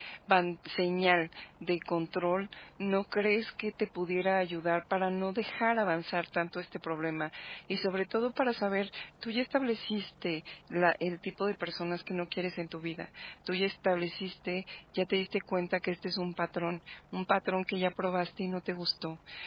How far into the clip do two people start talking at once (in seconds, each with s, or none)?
none